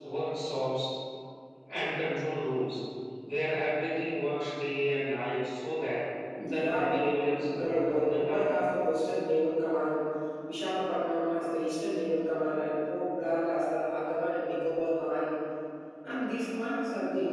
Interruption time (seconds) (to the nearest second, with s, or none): 6 s